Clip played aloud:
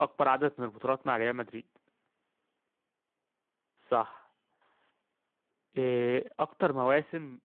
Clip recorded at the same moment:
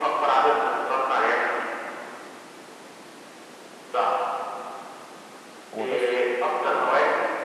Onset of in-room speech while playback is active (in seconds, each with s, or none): 5.7 s